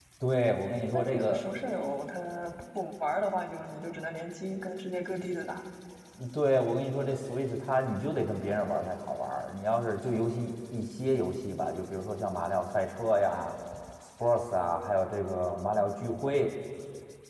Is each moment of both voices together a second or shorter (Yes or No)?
Yes